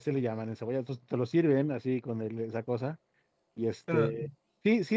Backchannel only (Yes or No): Yes